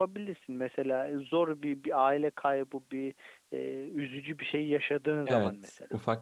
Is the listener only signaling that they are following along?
No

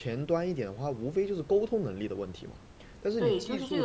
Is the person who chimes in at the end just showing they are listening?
No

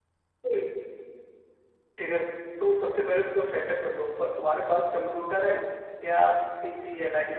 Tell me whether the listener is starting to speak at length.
No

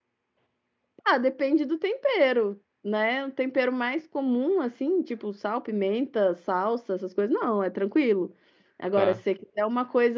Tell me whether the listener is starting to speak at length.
No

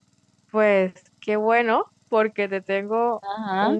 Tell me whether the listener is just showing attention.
Yes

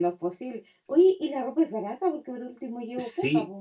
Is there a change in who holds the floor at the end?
Yes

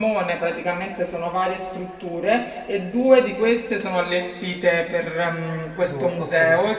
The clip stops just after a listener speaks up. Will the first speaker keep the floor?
Yes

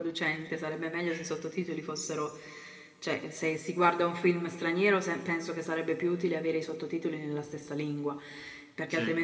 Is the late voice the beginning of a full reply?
No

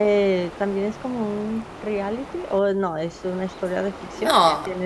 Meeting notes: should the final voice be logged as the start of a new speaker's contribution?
Yes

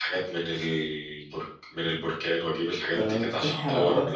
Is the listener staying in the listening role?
No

